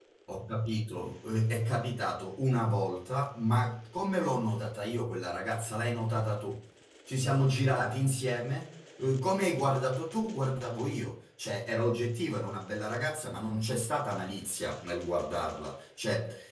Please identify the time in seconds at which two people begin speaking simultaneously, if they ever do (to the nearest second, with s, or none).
none